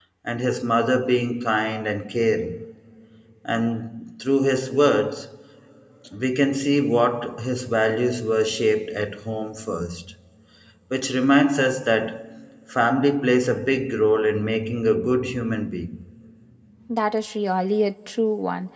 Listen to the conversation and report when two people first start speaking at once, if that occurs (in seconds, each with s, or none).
none